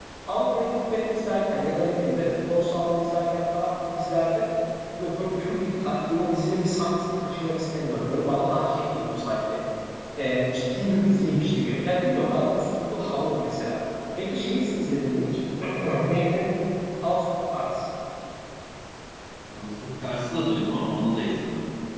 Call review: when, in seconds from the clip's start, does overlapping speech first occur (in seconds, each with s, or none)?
none